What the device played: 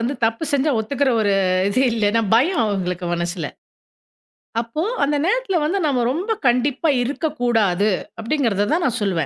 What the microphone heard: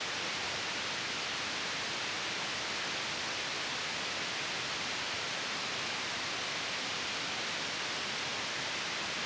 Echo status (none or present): none